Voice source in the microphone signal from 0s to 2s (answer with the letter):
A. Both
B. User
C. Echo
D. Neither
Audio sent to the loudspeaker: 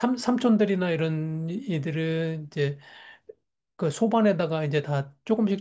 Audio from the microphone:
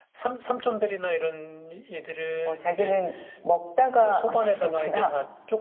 C